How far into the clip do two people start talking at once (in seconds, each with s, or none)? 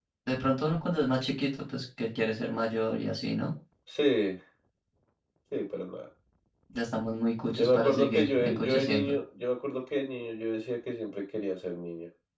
7.6 s